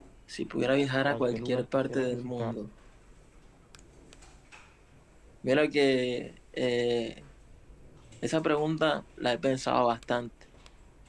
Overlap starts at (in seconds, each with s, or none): 1.1 s